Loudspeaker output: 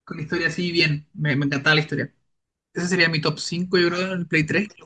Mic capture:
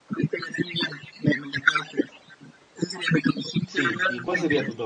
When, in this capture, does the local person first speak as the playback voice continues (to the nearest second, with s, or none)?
4 s